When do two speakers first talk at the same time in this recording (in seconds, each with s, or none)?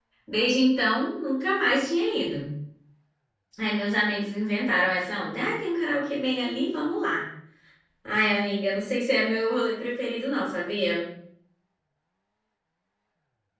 none